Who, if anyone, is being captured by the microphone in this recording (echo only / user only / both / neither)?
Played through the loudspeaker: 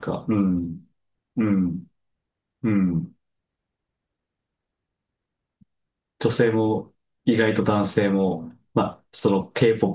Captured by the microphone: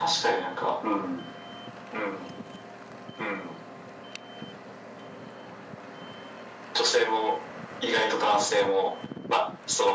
echo only